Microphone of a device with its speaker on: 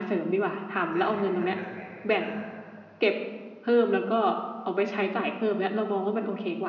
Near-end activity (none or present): present